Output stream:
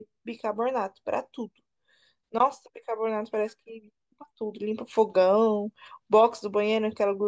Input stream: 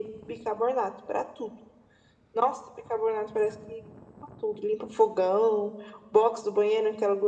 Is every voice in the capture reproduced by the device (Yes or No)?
Yes